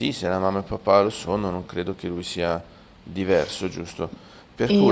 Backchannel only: Yes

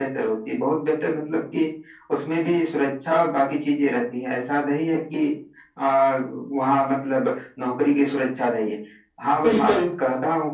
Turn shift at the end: No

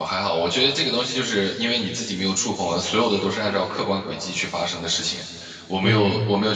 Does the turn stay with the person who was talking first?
Yes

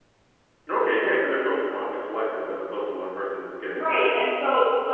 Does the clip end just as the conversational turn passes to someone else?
Yes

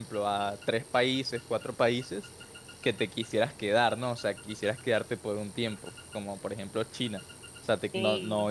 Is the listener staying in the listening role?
Yes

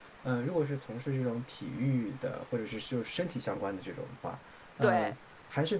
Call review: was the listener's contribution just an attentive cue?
Yes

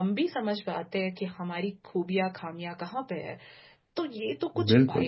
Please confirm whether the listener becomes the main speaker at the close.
No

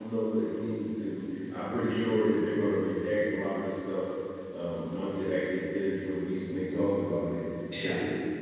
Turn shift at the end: No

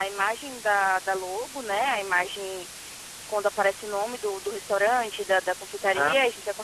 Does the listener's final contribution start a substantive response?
No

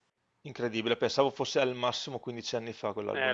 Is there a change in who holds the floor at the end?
Yes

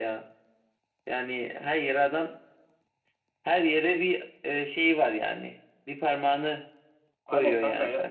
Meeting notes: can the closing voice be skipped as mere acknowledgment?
No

